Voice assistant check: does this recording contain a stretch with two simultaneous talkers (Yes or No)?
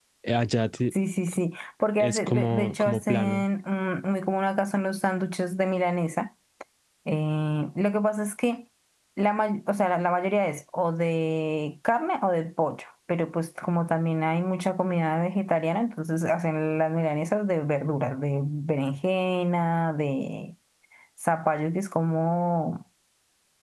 Yes